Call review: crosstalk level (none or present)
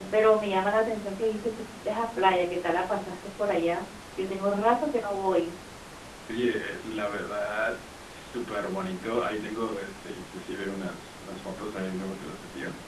none